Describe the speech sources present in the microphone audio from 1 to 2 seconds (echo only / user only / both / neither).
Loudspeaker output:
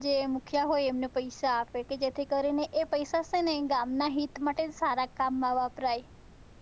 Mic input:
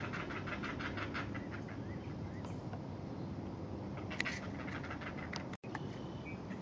neither